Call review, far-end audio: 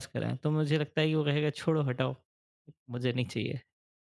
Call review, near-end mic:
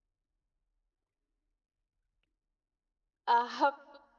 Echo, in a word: none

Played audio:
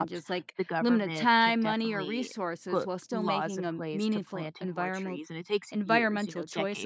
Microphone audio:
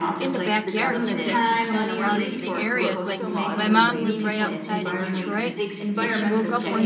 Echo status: present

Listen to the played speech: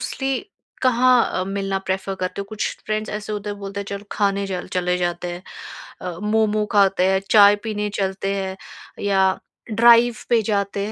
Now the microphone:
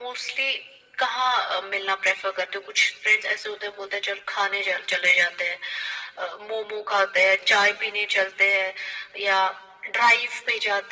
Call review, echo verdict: present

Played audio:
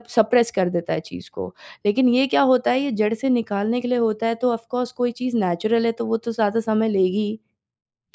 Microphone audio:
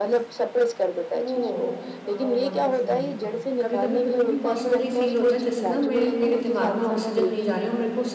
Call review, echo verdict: present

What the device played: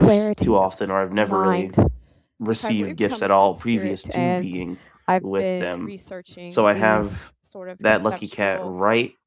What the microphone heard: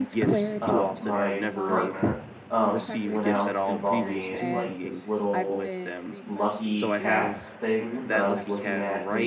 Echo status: present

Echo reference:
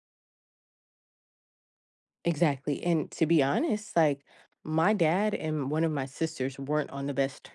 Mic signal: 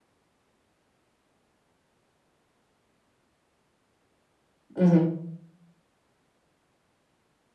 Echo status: none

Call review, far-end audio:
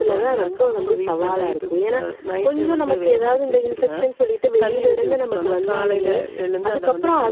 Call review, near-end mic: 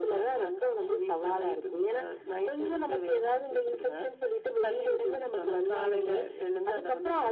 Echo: present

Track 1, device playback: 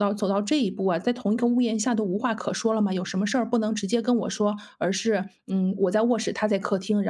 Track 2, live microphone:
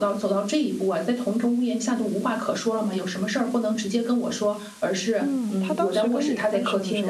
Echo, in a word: present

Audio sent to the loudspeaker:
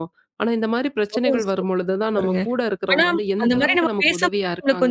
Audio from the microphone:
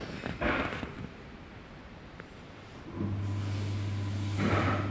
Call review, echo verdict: none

